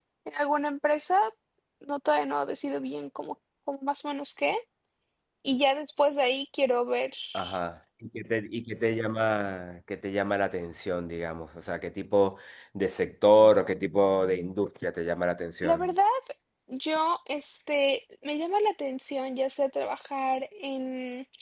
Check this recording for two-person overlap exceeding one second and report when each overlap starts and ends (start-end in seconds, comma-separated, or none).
none